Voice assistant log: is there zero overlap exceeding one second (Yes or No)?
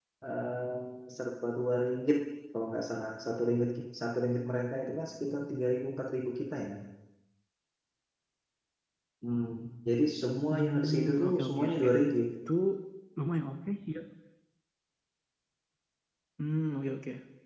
No